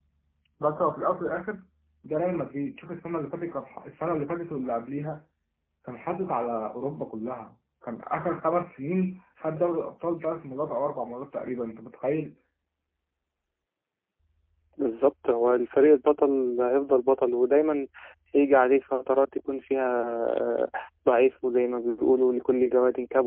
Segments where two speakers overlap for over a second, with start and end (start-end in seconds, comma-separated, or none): none